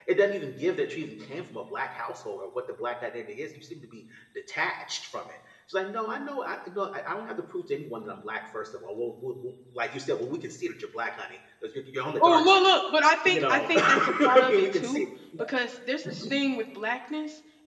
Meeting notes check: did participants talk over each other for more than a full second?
Yes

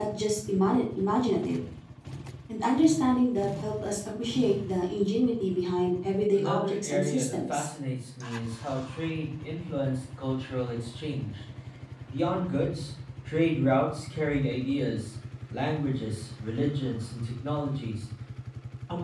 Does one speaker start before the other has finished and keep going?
Yes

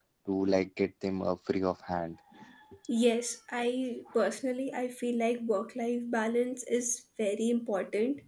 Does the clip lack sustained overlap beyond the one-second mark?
Yes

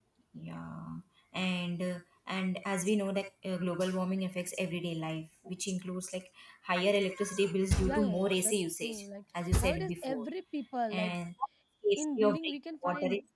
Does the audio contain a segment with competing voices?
Yes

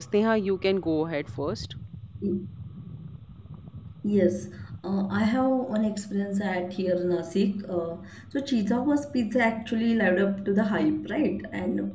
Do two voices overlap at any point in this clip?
No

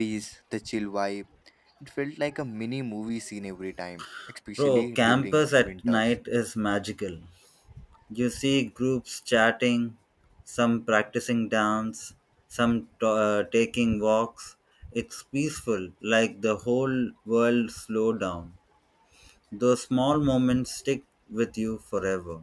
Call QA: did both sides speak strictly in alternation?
No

